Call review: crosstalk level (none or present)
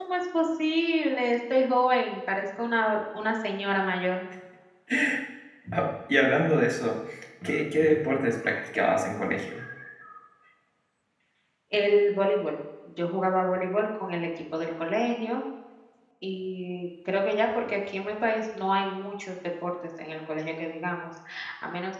none